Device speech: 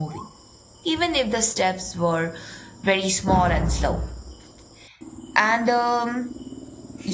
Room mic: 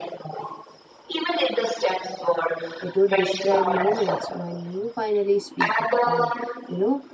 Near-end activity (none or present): present